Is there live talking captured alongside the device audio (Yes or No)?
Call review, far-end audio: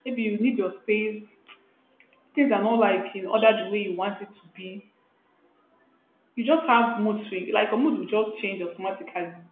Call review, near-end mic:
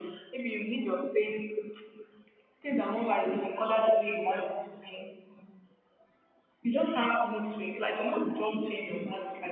No